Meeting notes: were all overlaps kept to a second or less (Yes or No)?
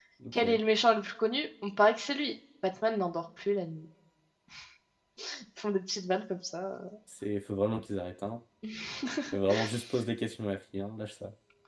Yes